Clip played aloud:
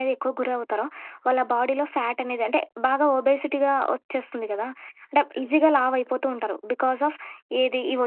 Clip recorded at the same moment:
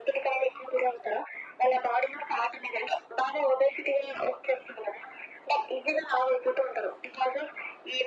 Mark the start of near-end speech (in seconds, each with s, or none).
none